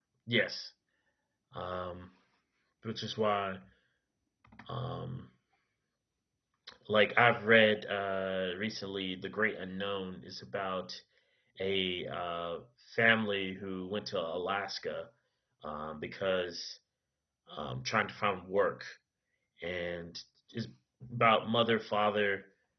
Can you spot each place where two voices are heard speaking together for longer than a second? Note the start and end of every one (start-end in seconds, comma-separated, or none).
none